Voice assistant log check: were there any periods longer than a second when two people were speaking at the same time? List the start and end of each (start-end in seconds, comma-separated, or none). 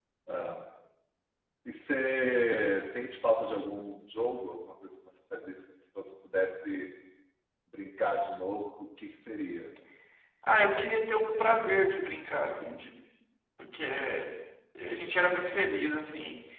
none